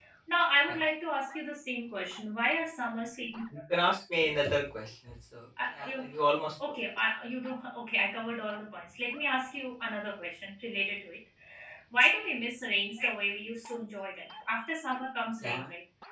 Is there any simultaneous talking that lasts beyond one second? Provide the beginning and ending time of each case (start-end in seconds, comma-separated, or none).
none